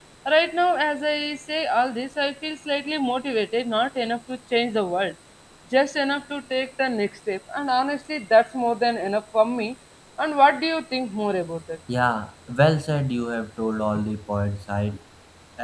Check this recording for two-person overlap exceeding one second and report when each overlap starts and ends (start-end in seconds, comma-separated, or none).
none